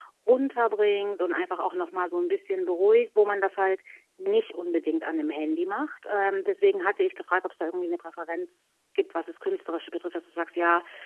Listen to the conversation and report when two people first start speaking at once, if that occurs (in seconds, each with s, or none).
none